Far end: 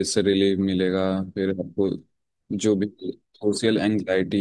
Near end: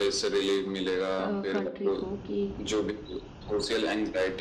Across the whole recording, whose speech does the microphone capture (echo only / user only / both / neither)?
both